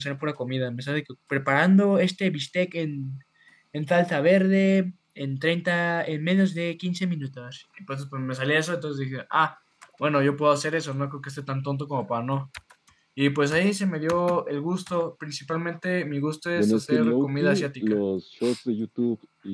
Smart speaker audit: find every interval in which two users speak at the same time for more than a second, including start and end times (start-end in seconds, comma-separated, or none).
16.6-18.0